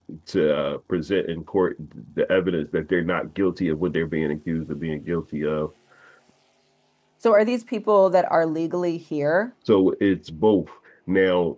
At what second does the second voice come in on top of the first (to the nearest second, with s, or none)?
none